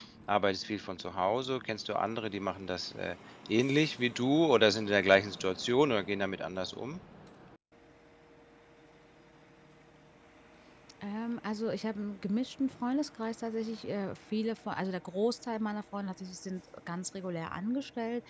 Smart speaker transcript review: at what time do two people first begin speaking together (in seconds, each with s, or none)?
none